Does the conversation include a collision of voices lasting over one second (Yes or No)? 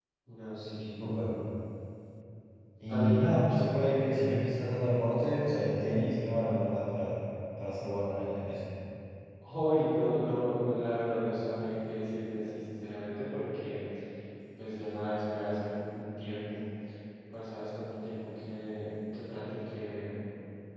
Yes